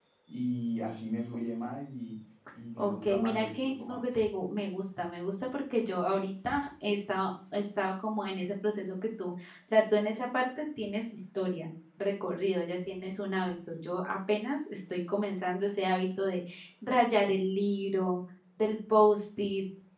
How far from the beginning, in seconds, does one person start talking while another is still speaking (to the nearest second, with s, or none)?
3 s